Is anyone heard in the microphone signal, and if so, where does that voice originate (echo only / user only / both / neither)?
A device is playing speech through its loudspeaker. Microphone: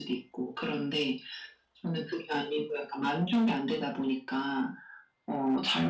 echo only